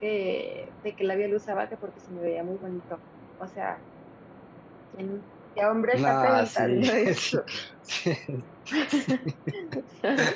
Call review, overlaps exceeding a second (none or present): present